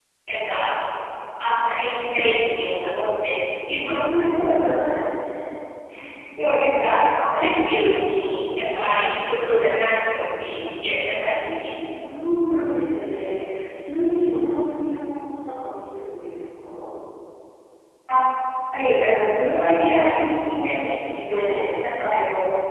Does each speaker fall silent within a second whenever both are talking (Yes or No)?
Yes